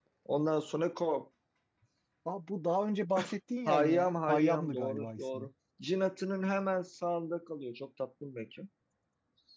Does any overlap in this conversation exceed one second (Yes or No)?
Yes